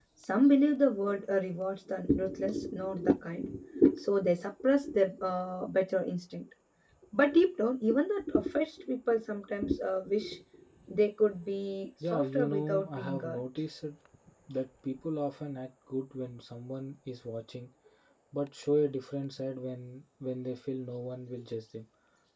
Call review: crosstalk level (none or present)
present